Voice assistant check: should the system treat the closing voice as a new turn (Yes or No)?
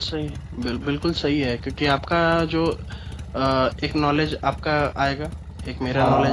No